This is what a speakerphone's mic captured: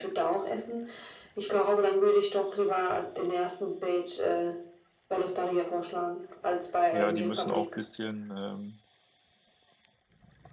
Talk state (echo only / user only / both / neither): both